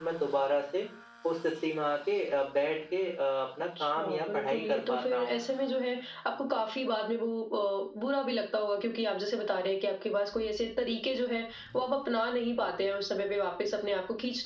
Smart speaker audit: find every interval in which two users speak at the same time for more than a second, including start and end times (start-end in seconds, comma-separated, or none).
3.8-5.4